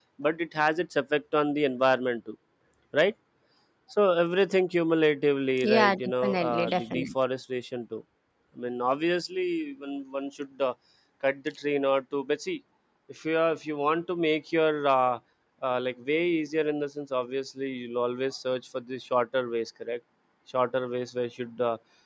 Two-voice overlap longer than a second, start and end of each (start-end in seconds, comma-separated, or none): 5.6-7.1